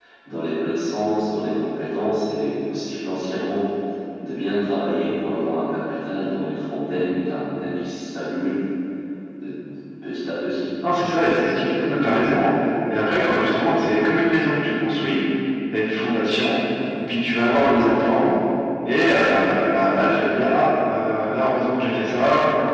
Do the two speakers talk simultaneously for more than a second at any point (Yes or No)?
No